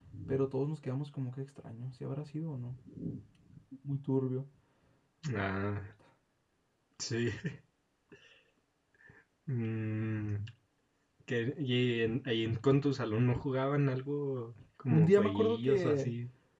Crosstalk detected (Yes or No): Yes